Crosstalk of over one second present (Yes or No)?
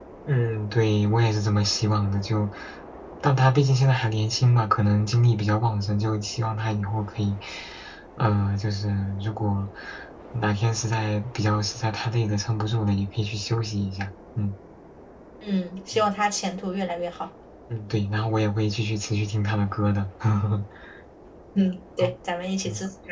No